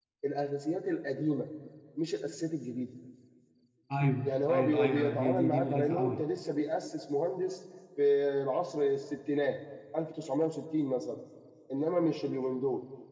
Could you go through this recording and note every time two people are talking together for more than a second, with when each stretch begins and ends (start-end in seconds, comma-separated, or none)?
4.2-6.2